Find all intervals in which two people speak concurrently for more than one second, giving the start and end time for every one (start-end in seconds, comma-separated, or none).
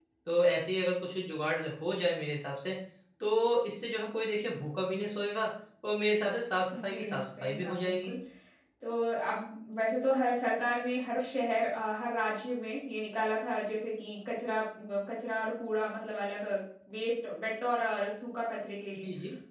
6.7-8.1